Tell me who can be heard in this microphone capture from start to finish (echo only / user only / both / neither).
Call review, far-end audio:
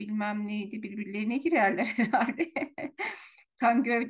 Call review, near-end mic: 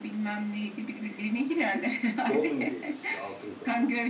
both